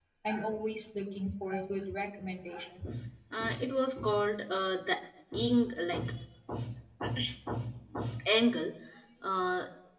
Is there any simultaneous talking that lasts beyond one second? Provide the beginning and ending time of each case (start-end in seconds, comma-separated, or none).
none